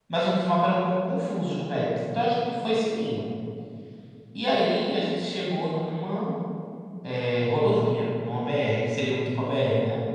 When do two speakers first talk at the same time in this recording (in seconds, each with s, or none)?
none